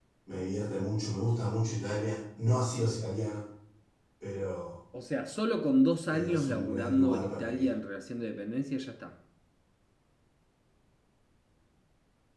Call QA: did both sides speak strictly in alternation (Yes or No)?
No